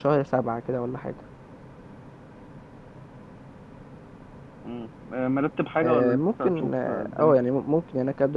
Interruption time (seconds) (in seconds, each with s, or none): 5.8 s